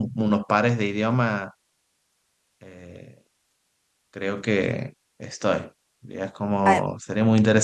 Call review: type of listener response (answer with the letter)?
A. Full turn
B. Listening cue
B